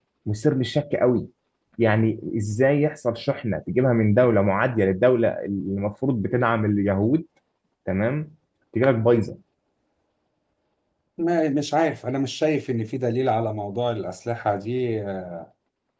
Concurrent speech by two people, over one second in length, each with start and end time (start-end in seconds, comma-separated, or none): none